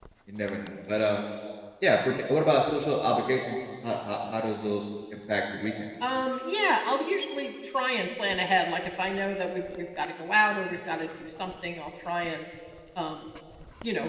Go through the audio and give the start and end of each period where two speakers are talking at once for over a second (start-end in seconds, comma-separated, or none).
none